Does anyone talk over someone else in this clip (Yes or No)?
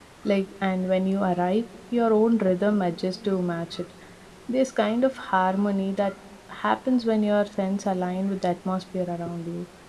No